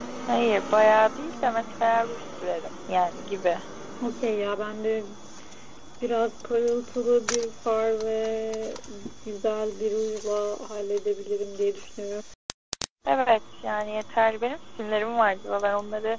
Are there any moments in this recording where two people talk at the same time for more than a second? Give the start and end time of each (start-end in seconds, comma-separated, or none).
none